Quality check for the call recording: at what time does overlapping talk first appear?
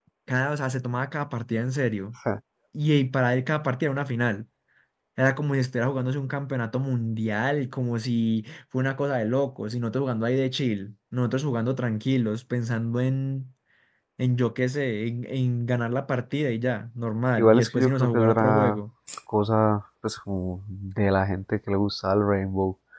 17 s

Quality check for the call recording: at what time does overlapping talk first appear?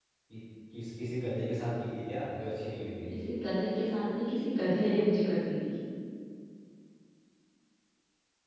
none

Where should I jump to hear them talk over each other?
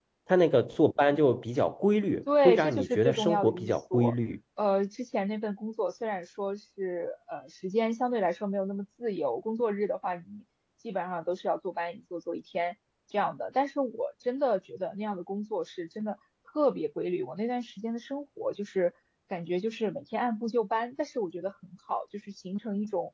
2 s

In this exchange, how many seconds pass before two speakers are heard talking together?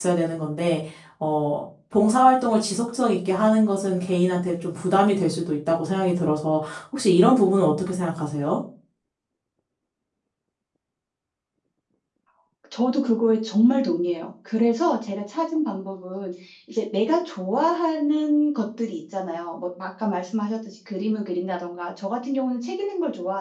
none

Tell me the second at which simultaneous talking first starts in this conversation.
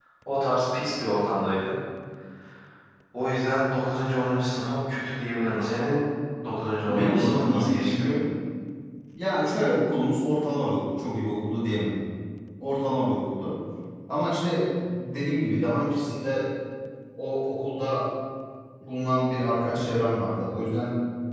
7 s

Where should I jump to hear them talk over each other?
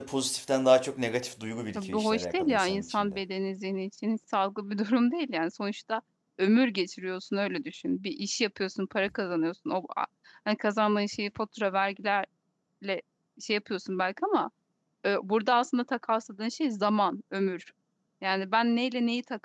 2 s

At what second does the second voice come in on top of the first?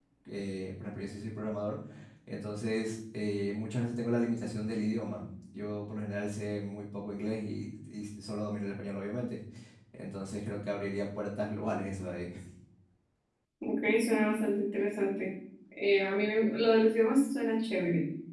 none

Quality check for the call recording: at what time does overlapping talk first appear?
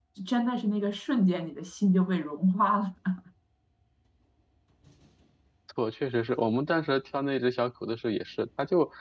none

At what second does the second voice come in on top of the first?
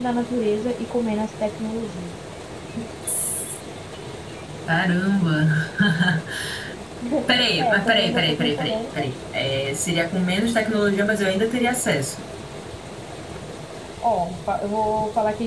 8 s

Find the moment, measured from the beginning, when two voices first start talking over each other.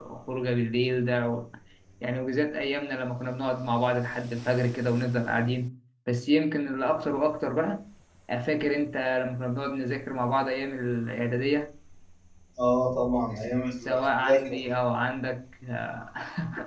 13 s

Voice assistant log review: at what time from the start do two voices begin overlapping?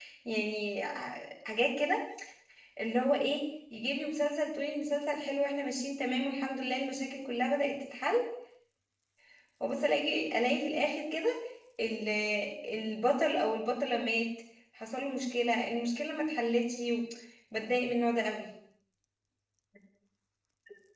none

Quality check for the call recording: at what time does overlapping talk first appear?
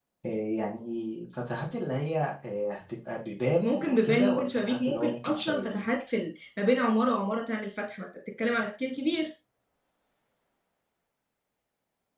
4 s

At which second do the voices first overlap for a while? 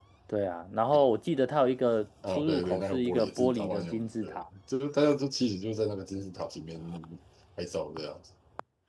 2 s

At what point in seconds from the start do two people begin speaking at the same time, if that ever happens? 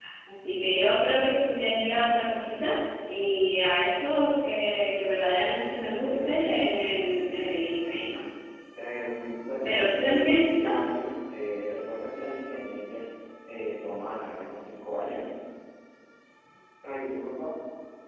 6 s

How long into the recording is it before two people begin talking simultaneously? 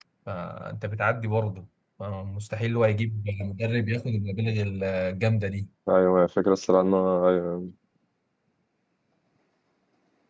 none

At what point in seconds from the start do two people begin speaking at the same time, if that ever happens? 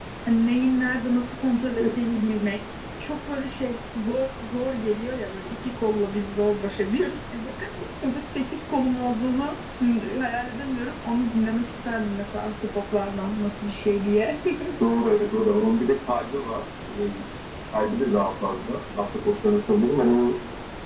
none

